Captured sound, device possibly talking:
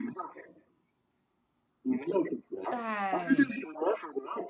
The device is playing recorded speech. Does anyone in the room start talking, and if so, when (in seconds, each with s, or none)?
2.7 s